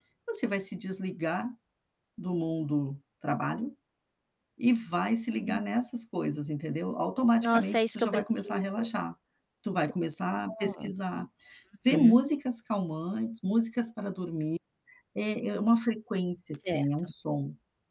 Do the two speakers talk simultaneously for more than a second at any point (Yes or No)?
Yes